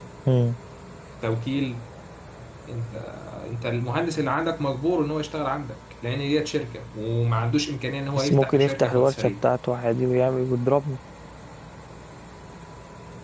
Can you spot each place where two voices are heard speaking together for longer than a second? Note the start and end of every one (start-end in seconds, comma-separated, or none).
8.1-9.4